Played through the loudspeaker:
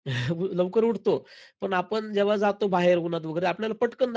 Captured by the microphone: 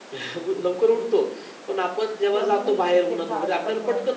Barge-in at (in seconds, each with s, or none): 2.3 s